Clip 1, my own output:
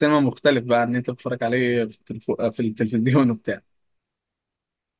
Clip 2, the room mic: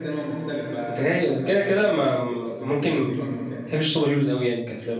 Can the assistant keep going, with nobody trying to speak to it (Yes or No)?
No